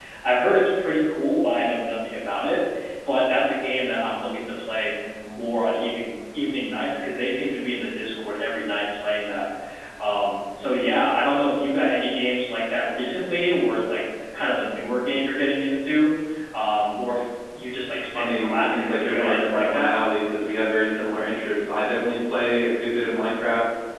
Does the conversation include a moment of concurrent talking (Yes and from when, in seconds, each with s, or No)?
Yes, from 18.1 s